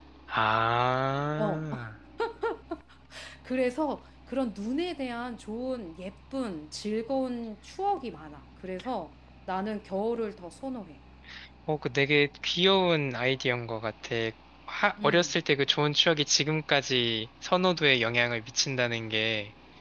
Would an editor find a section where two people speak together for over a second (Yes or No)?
No